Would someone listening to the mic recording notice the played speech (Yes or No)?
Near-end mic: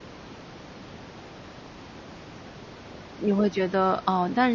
No